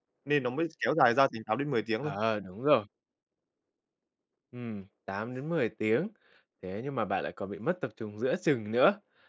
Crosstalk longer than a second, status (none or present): none